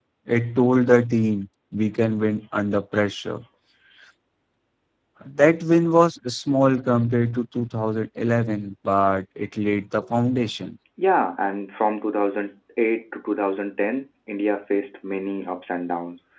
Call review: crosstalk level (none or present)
none